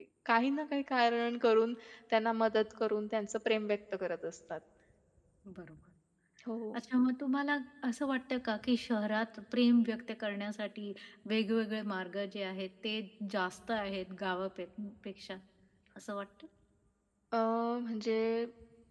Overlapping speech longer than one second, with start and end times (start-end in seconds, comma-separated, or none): none